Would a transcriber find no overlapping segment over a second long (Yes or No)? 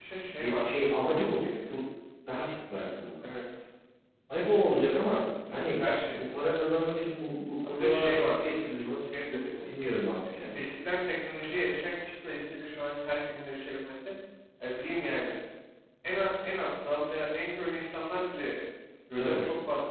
No